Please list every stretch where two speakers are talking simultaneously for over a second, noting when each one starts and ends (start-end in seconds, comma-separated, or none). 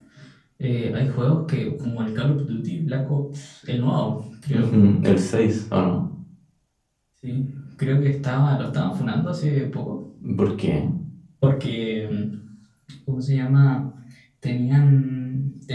none